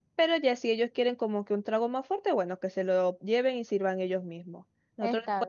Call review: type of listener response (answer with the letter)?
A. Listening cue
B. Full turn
A